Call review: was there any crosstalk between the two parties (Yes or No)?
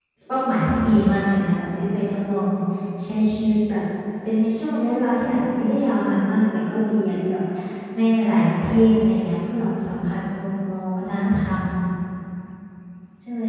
No